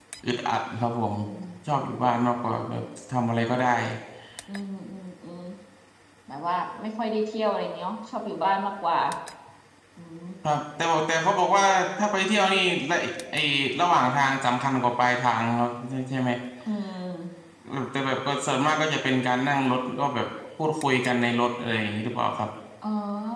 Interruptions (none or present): none